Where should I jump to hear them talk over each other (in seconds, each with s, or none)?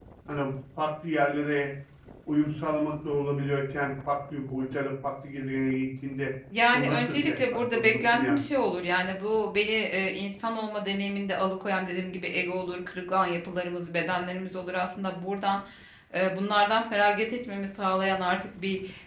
6.5 s